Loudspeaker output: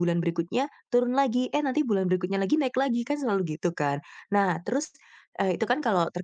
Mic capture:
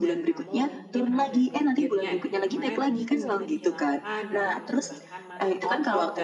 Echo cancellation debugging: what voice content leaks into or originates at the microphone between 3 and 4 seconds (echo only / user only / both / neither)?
both